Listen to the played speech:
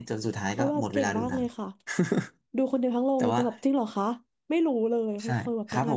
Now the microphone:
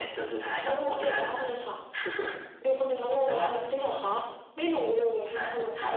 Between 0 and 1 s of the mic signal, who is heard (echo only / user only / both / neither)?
echo only